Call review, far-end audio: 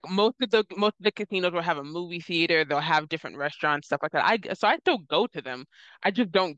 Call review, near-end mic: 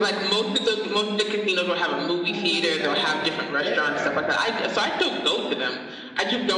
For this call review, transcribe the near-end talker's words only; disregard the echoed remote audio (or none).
Um, but I think that's it there.